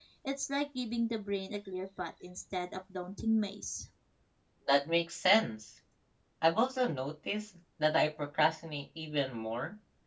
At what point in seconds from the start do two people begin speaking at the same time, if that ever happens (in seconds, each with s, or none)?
none